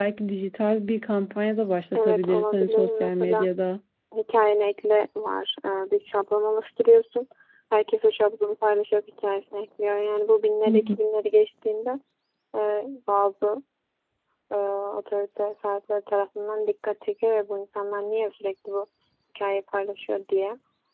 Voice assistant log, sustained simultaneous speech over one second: present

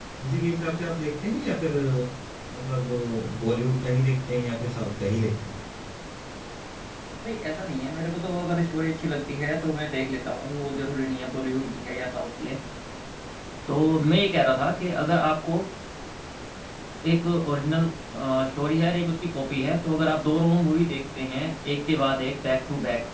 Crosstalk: none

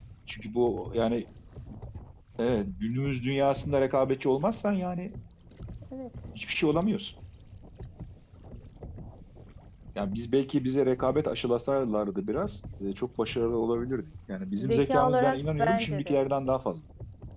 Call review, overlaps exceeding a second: present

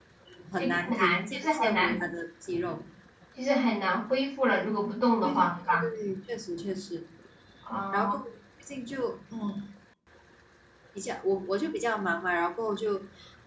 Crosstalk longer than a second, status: present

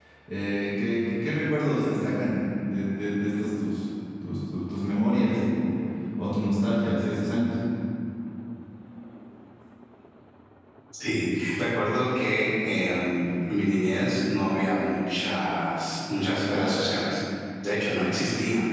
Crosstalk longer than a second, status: none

